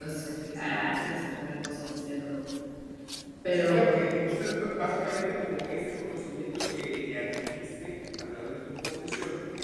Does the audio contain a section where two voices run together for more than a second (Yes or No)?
No